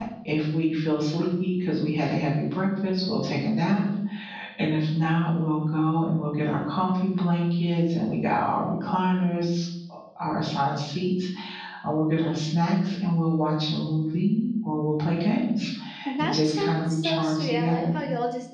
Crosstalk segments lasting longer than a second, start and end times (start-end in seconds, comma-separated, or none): 16.2-18.0